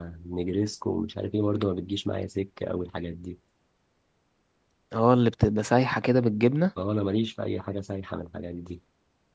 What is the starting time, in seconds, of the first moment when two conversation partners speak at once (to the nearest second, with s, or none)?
none